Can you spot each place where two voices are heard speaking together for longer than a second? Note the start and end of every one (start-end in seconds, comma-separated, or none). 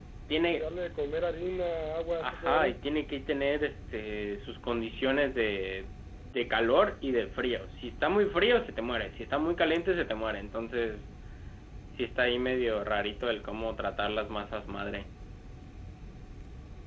none